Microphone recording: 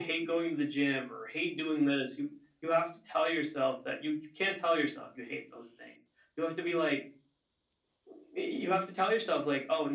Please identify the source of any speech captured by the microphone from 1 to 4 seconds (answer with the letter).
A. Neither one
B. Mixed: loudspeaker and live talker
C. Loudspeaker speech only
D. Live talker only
C